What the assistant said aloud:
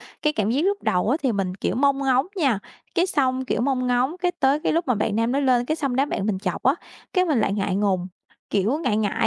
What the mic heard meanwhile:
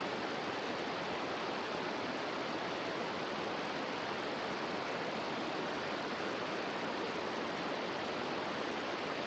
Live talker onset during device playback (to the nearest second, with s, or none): none